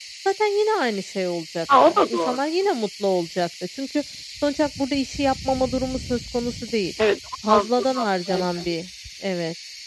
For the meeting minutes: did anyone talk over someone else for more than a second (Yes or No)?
Yes